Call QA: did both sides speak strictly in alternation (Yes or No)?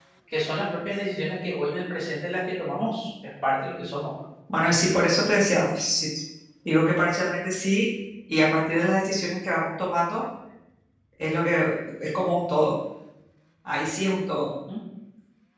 Yes